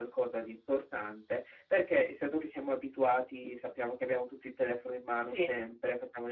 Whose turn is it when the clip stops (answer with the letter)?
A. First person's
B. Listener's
A